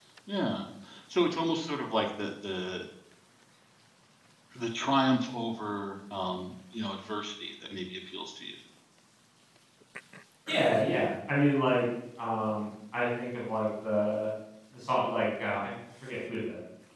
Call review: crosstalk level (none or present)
none